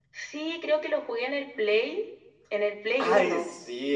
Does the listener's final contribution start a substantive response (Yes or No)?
Yes